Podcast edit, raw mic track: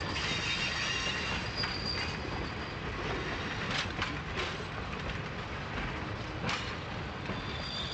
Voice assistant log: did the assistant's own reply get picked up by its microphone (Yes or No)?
No